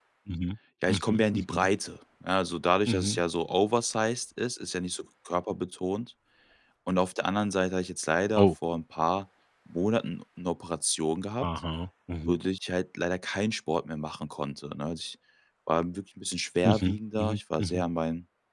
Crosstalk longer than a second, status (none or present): present